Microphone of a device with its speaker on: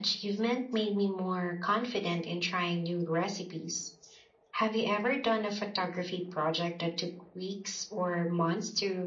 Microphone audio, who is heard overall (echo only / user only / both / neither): echo only